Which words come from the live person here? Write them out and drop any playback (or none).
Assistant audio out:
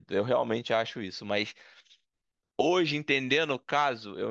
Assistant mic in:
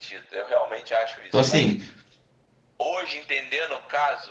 Então, assim,